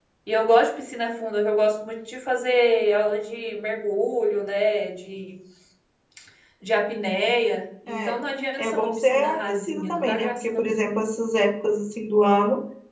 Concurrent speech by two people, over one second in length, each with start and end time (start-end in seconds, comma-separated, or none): 8.6-10.7